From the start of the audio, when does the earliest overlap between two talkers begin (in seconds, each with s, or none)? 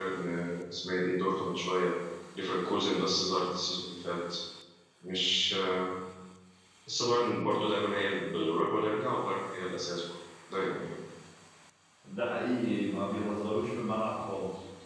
none